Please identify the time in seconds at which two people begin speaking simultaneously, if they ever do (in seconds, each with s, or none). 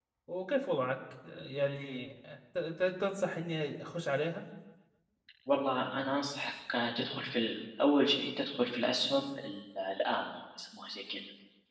none